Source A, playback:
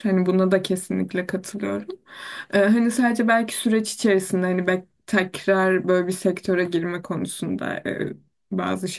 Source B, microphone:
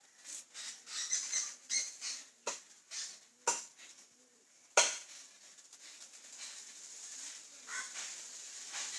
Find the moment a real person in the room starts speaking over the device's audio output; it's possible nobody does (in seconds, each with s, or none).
none